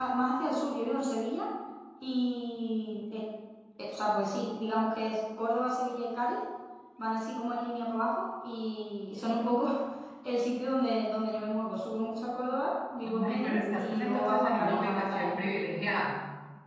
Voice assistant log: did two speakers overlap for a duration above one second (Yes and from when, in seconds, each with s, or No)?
Yes, from 13.0 s